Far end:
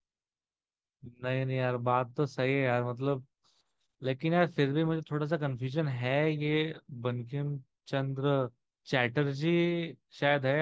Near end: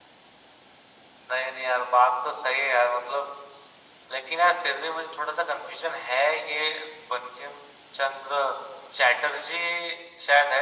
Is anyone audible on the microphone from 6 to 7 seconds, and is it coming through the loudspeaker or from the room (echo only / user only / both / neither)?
echo only